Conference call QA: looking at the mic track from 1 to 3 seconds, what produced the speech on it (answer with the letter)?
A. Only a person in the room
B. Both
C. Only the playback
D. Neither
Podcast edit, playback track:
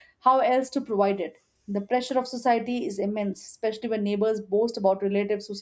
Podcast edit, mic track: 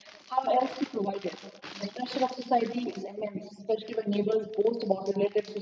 C